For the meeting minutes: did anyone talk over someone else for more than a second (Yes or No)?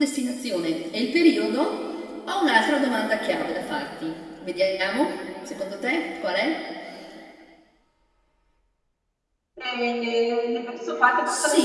No